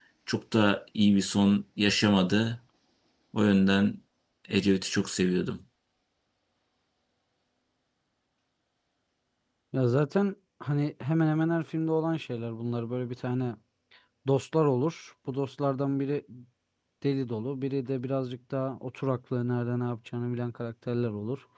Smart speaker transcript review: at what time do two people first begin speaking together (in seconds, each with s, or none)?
none